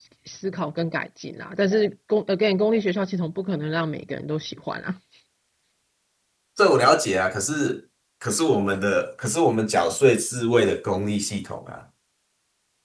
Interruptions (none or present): none